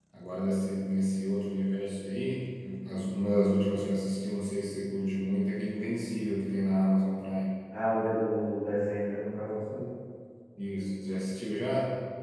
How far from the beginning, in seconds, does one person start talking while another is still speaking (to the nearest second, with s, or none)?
none